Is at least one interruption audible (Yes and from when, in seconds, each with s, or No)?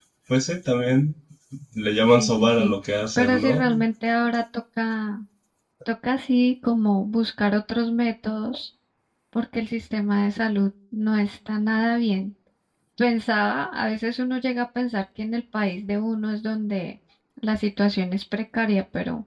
Yes, from 2.0 s